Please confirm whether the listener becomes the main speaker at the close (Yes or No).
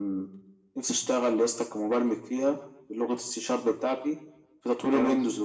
No